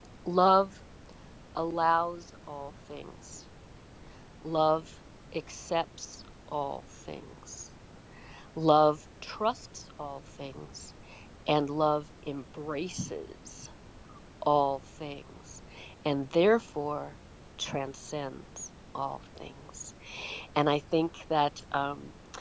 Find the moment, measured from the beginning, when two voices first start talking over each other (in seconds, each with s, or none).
none